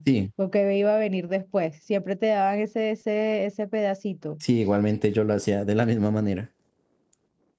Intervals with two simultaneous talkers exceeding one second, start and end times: none

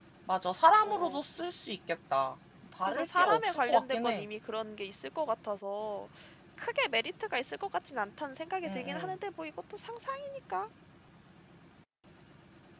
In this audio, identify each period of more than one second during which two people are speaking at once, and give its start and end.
2.8-4.2

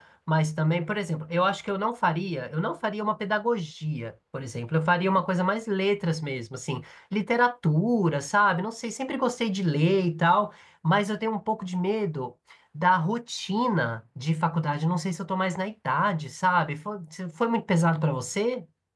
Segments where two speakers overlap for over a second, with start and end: none

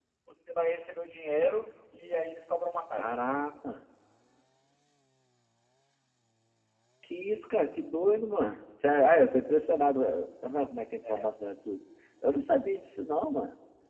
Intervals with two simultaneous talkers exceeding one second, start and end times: none

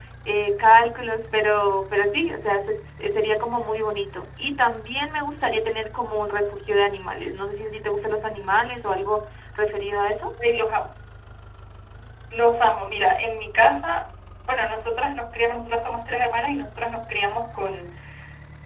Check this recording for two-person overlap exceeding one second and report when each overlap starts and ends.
none

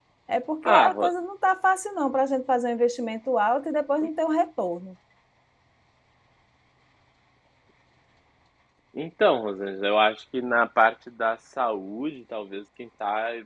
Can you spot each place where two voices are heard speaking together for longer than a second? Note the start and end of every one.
none

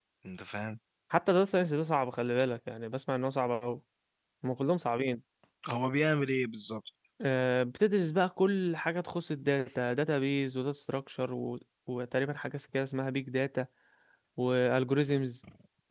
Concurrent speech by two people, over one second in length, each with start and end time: none

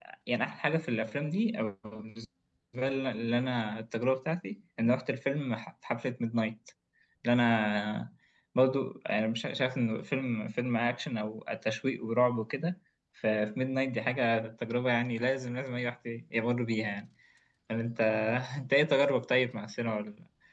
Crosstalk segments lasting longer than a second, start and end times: none

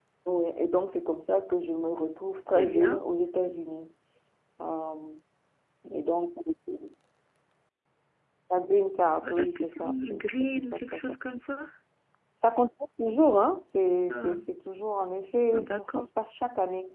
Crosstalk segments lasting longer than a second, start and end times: 9.4-11.2

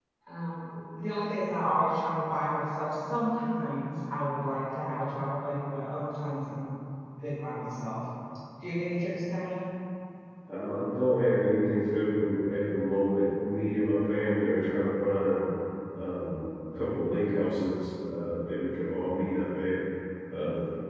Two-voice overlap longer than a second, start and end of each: none

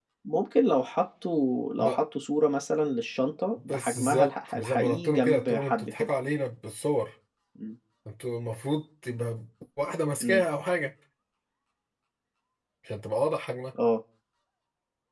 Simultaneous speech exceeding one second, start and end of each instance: 3.5-6.1

